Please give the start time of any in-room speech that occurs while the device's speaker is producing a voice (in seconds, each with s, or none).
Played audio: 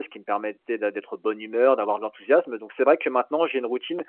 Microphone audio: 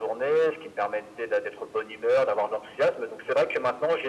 none